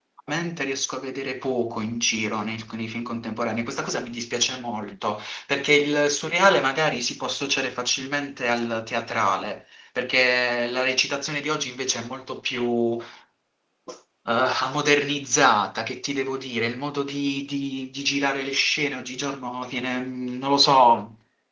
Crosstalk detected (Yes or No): No